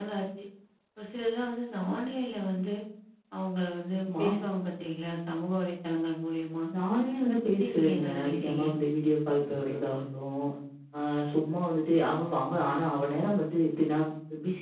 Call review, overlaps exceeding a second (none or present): present